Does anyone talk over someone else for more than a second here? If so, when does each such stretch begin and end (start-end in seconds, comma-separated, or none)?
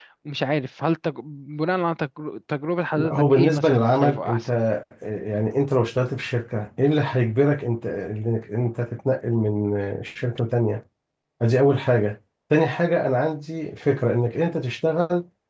3.0-4.5